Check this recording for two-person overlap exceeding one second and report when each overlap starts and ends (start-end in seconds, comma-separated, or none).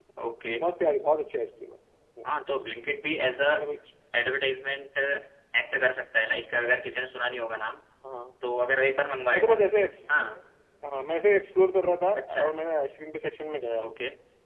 none